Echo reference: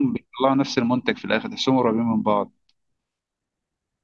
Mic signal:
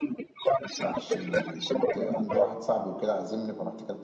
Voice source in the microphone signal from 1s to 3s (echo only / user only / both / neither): both